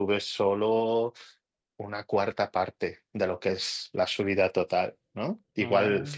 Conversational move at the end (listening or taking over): listening